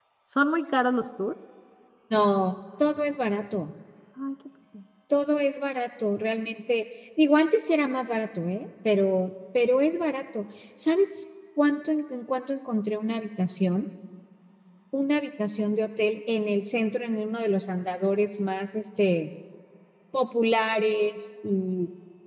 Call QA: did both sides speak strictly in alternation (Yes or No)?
Yes